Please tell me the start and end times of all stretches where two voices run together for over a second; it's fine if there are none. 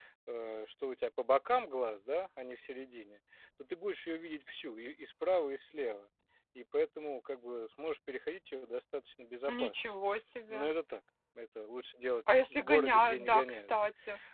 12.3-13.7

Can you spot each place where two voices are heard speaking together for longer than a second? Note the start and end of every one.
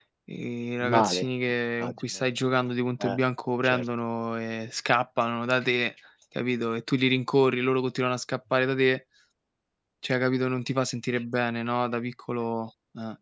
none

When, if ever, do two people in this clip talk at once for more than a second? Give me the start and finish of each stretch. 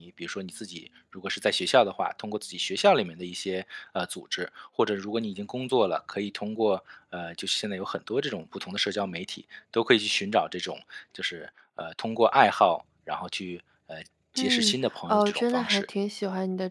14.4-15.8

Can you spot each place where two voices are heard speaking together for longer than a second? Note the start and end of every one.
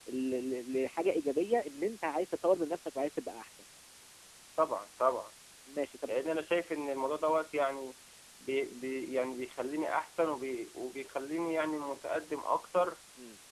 none

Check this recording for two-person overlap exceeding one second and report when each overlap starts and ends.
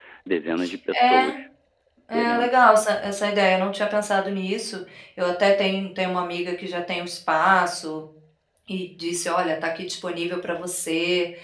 none

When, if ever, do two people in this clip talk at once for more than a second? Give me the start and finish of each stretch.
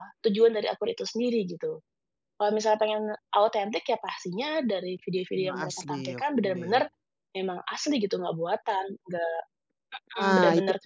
5.4-6.8

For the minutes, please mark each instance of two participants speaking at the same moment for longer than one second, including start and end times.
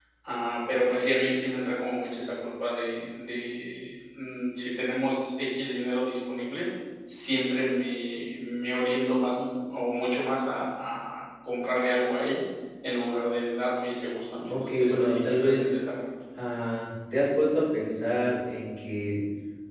14.5-15.8

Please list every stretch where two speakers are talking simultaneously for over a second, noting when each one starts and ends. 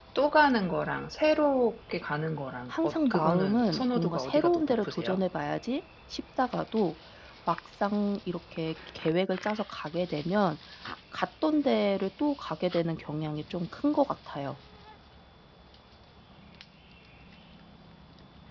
2.7-5.2

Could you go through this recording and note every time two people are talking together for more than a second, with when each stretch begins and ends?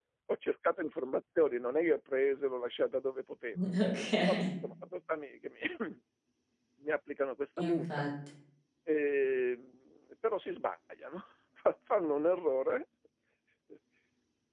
none

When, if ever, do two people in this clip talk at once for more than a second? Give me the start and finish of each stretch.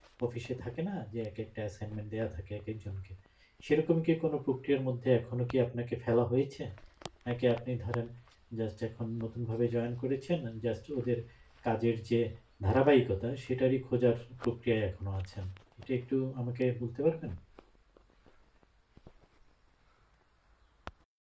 none

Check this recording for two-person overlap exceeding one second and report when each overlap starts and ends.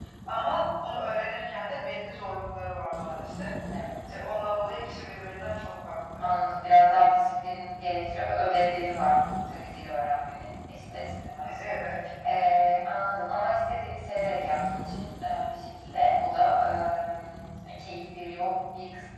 none

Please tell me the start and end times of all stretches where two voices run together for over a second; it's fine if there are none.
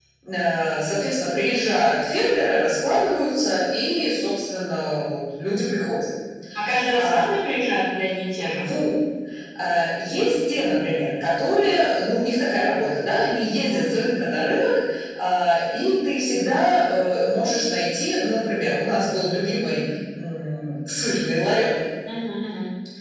none

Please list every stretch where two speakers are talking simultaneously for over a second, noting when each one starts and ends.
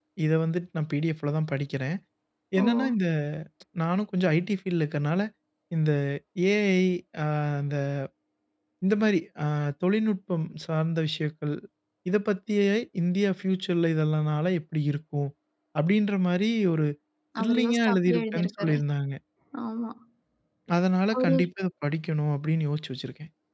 17.4-18.8

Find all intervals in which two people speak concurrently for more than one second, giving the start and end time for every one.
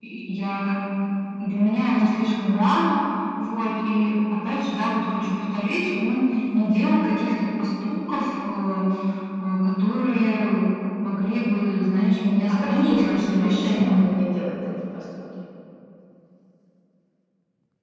12.5-14.1

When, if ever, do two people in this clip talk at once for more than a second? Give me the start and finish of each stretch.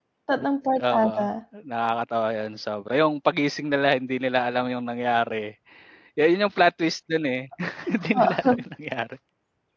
none

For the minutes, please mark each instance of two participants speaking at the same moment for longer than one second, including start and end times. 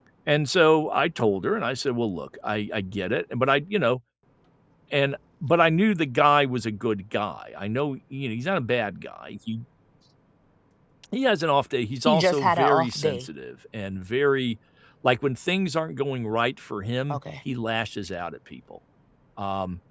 12.1-13.3

